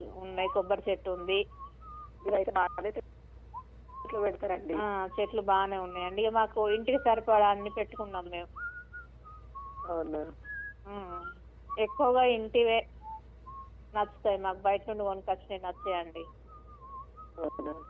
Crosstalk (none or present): none